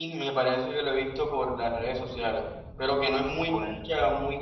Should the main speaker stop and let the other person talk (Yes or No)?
No